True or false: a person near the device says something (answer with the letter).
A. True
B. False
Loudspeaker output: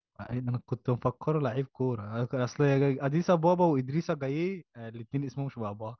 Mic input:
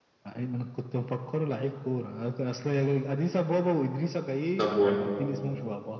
A